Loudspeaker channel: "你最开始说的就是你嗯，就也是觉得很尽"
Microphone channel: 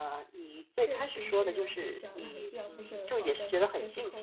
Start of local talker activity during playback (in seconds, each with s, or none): 0.8 s